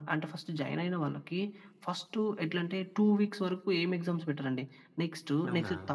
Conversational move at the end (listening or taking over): listening